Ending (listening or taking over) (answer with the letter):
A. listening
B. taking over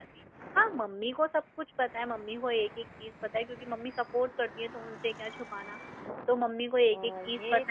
B